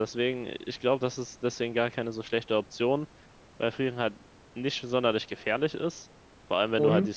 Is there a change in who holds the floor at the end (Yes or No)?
No